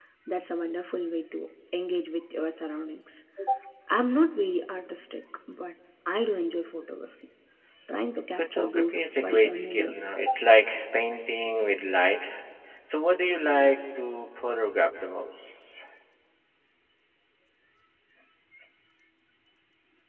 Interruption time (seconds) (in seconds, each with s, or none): 8.4 s